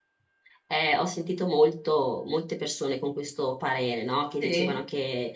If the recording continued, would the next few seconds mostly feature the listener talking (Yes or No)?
No